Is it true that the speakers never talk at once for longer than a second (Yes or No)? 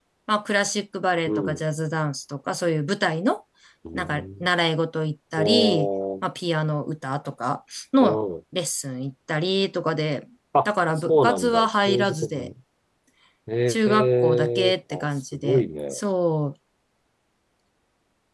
No